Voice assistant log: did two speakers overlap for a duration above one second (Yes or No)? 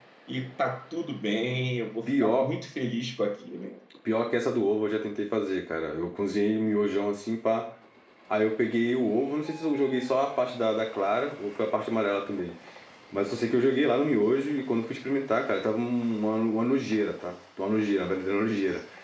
No